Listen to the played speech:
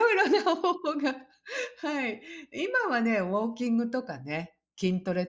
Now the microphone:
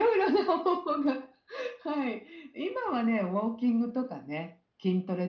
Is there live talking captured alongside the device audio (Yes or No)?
No